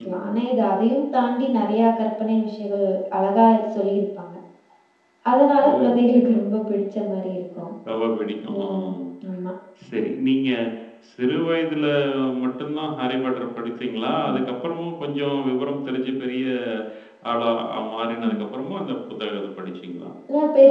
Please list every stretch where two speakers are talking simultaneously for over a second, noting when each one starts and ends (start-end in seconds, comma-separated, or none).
none